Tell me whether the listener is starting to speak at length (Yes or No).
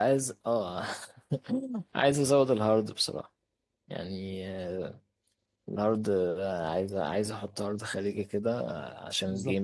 Yes